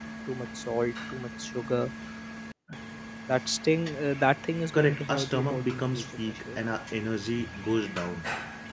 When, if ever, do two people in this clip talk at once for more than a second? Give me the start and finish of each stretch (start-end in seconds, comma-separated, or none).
4.7-6.6